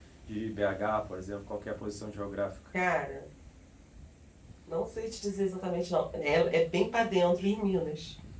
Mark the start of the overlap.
none

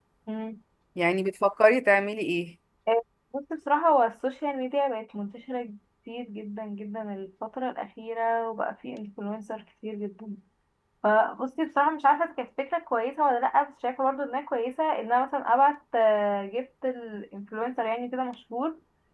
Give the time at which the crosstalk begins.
none

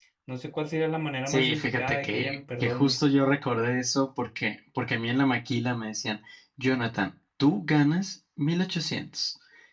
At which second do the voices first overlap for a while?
1.3 s

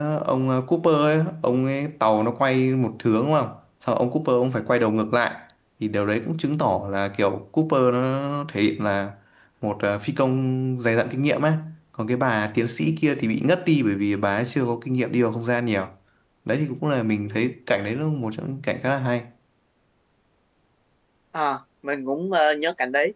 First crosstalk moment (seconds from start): none

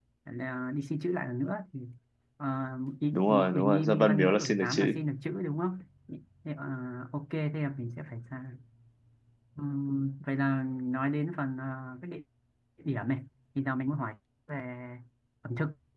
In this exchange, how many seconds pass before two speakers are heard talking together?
3.1 s

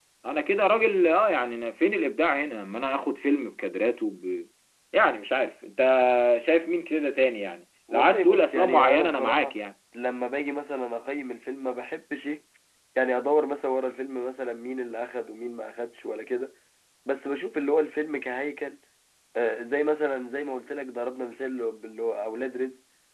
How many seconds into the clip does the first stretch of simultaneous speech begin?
7.9 s

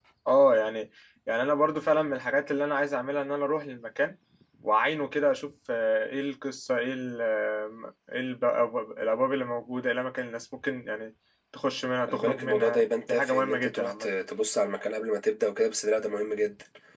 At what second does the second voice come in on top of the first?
12.1 s

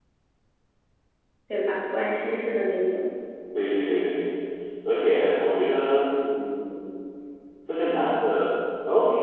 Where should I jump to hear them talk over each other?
none

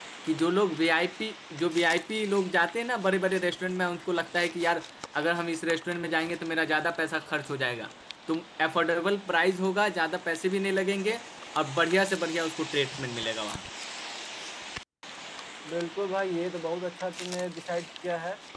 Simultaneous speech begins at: none

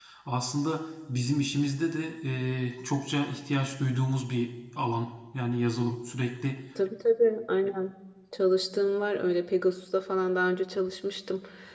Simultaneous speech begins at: none

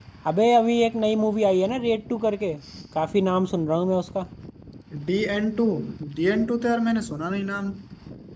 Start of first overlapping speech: none

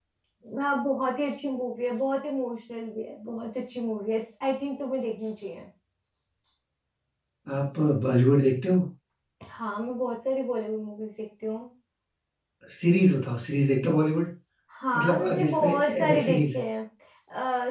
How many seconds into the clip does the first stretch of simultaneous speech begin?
14.9 s

